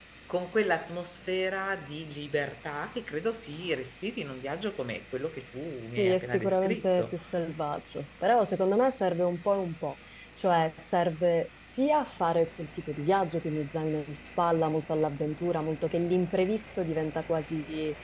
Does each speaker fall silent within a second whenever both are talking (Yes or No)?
No